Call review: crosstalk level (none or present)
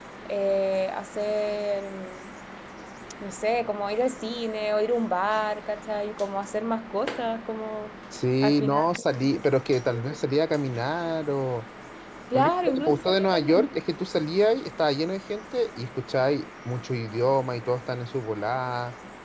present